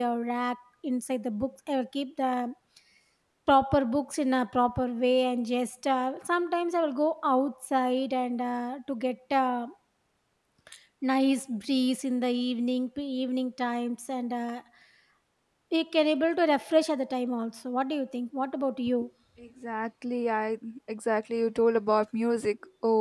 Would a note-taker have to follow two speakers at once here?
No

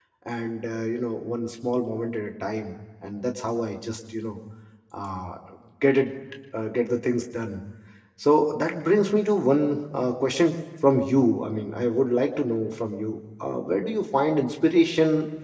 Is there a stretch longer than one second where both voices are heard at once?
No

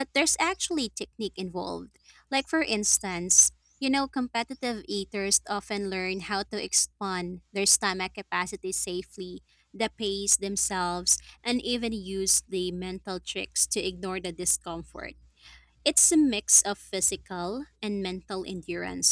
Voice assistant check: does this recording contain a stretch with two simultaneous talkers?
No

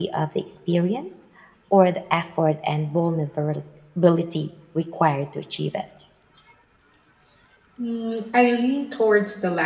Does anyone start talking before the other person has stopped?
No

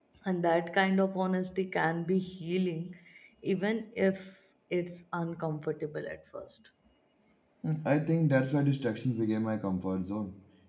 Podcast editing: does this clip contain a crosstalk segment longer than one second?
No

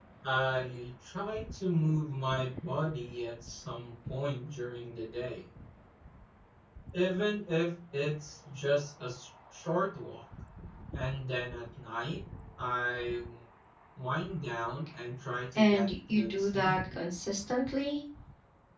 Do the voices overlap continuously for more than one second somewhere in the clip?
Yes, from 15.6 s

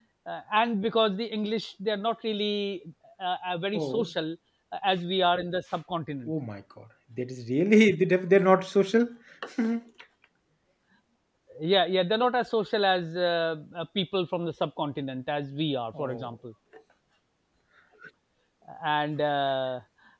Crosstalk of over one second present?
No

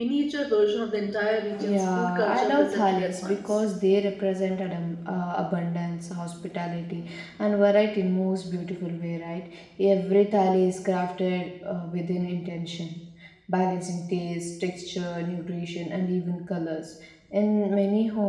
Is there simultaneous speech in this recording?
Yes, from 1.6 s

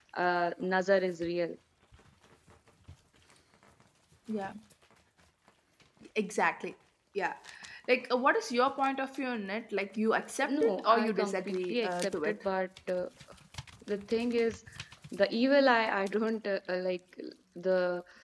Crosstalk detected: Yes, from 10.4 s

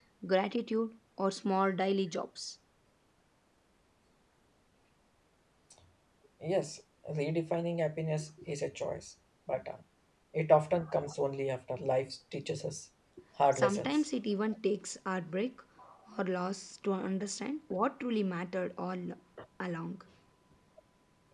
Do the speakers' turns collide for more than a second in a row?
No

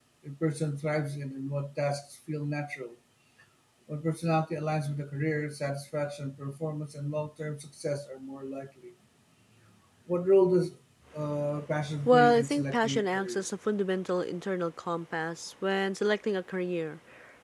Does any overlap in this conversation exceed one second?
Yes, from 12.1 s

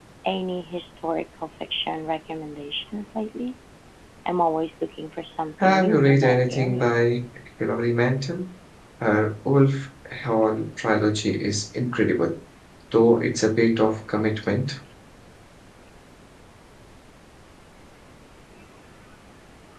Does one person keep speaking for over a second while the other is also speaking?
Yes, from 5.6 s

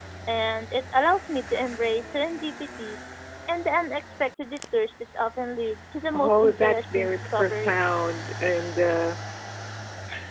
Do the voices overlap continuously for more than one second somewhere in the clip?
Yes, from 6.1 s

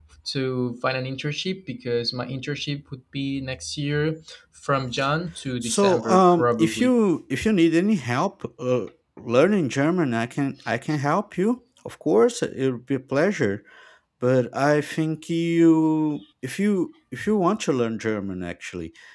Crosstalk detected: Yes, from 5.6 s

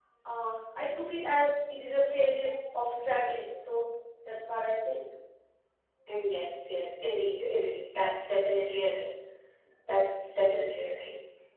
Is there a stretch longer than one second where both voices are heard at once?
No

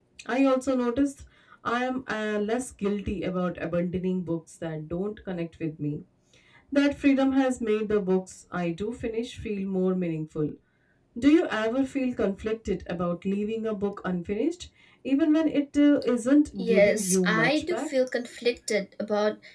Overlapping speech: Yes, from 16.6 s

